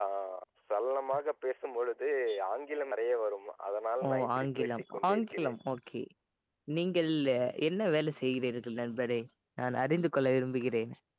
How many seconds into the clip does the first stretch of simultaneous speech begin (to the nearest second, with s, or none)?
4 s